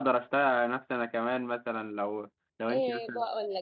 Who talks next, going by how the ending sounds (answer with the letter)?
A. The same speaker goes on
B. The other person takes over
B